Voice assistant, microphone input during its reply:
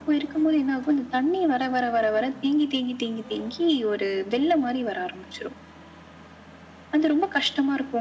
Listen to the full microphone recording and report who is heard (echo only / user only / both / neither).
echo only